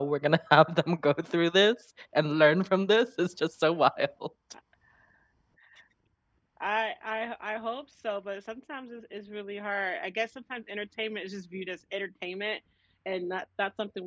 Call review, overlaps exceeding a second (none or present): none